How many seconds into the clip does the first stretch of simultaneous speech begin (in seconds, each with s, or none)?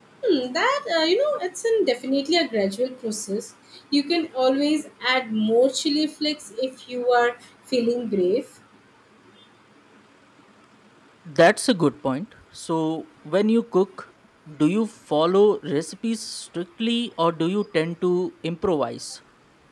none